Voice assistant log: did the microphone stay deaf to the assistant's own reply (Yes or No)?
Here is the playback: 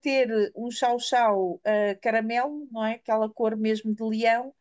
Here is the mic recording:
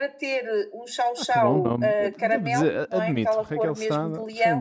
No